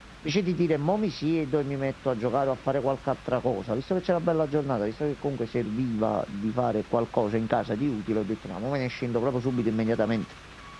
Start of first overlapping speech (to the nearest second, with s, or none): none